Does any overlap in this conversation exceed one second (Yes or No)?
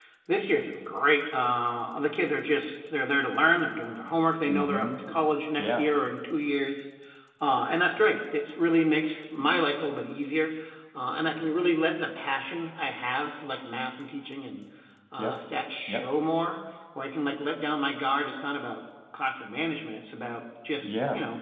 No